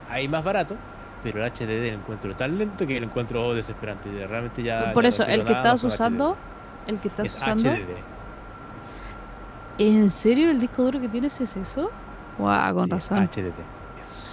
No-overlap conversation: No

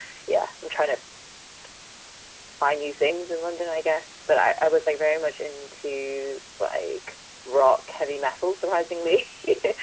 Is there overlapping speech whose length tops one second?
No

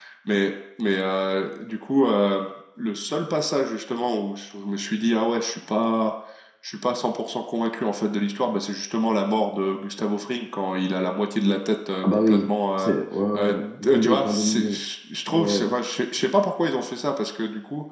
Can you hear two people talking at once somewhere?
Yes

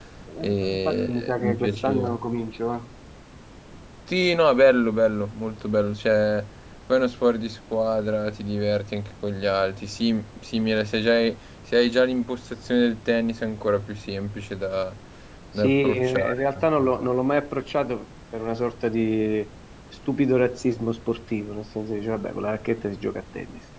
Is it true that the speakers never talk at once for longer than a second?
No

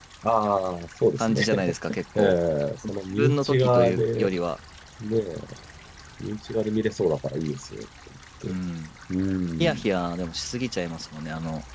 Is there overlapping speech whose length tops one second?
Yes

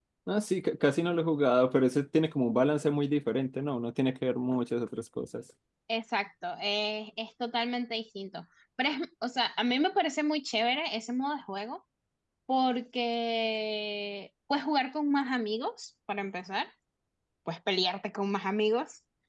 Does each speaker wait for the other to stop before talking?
Yes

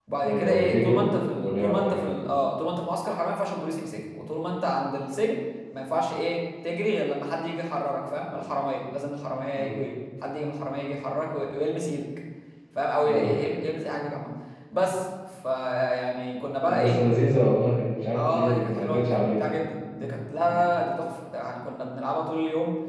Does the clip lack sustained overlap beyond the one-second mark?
No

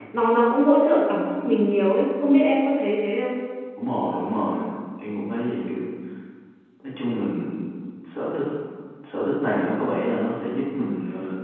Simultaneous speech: No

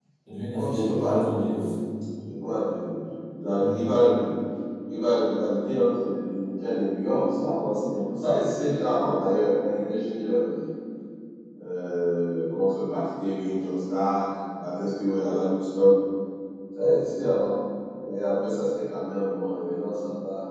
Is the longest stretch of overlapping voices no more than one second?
No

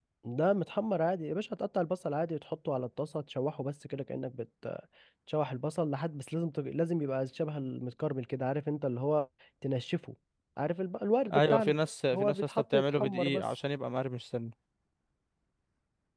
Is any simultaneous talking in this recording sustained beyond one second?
Yes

